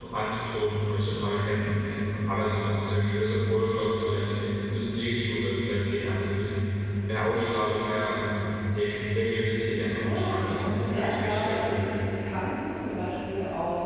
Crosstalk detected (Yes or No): Yes